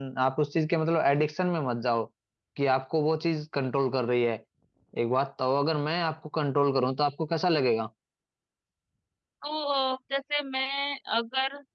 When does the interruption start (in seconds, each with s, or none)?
none